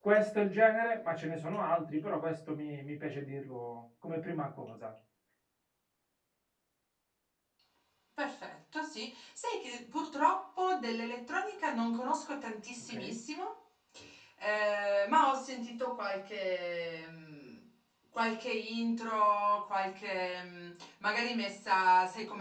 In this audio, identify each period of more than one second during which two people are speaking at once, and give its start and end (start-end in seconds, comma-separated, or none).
none